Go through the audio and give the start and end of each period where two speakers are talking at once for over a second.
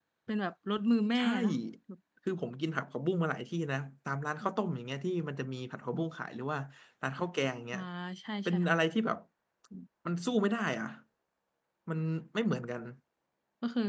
none

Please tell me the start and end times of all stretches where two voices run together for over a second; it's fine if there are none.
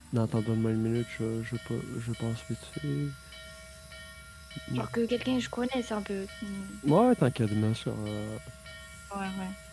none

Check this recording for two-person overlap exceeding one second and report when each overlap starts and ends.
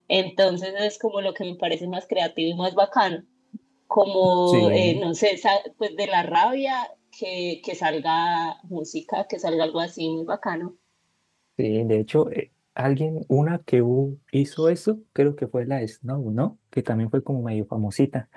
none

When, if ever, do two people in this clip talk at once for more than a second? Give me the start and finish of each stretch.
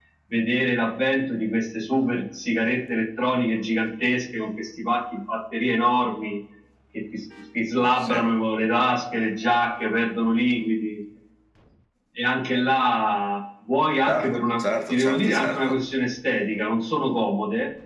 14.1-15.8

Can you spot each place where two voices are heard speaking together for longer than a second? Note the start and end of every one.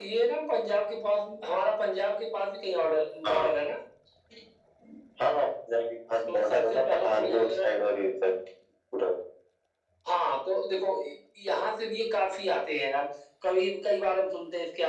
6.3-7.7

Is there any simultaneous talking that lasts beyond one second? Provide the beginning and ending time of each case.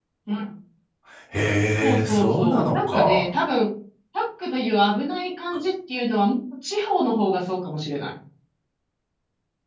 1.8-3.3

